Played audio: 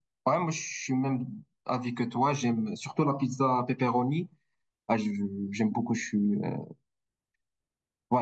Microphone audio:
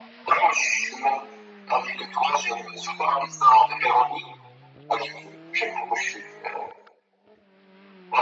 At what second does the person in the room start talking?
none

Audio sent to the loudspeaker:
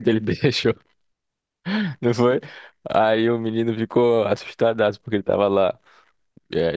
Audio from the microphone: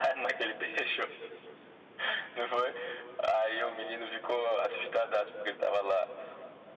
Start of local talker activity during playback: none

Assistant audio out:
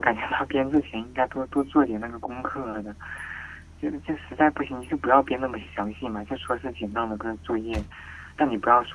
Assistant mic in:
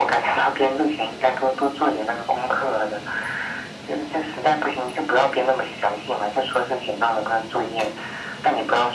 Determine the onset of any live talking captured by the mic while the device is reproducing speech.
none

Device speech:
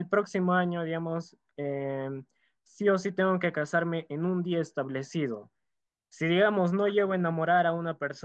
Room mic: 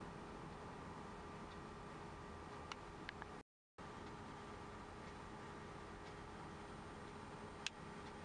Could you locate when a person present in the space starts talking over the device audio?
none

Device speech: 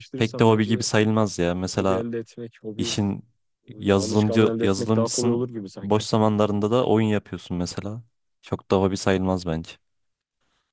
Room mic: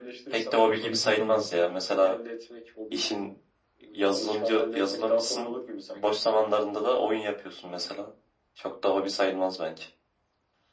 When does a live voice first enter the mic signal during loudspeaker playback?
1 s

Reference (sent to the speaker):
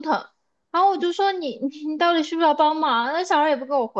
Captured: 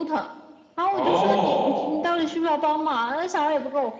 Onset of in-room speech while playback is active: 1 s

